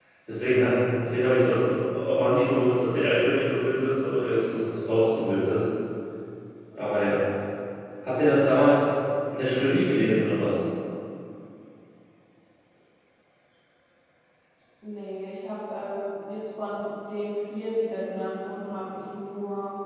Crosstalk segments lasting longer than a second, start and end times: none

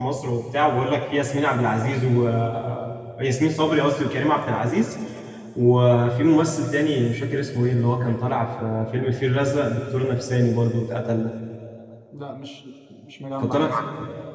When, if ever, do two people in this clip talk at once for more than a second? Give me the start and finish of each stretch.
none

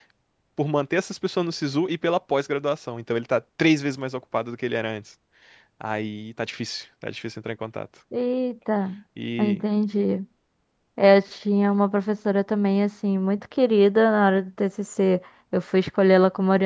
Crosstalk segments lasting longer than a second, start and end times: none

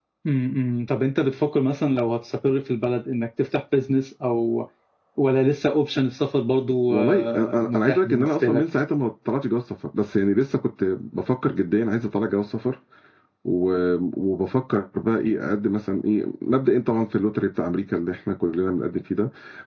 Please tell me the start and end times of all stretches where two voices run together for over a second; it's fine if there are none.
6.9-8.6

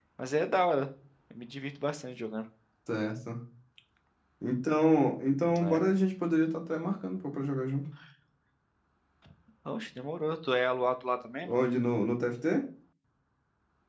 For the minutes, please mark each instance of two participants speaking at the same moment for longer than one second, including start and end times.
none

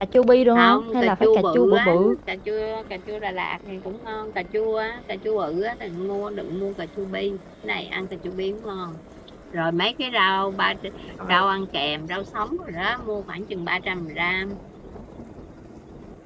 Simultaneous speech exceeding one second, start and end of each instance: 0.6-2.1

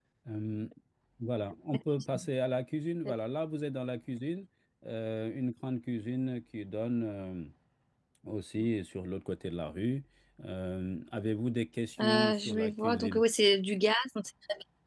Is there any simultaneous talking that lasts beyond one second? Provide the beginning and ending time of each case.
12.0-13.2

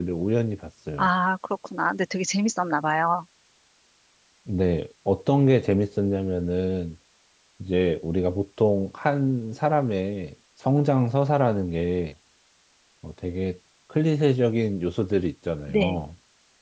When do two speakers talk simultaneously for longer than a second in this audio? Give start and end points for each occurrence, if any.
none

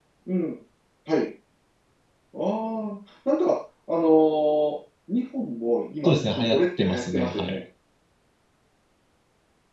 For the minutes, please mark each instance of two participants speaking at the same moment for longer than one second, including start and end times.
6.0-7.6

